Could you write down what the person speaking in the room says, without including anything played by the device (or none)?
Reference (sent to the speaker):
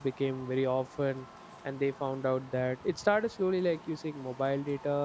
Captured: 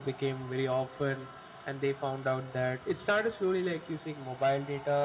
none